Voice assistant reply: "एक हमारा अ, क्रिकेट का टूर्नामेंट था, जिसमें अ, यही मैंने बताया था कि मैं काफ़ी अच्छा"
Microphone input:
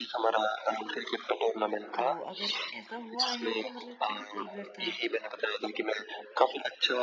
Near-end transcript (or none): तो अगर ऐसा हुआ है तो मतलब क्या ट्रिगर था?